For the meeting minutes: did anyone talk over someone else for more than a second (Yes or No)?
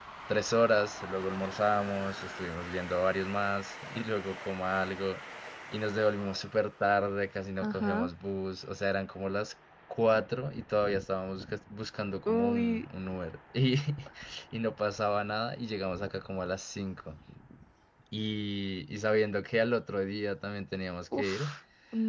No